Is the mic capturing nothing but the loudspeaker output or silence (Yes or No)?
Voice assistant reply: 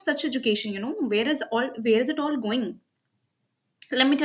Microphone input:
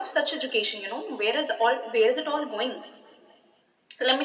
Yes